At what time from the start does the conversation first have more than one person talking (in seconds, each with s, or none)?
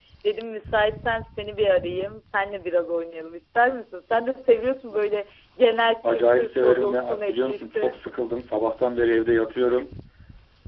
6.0 s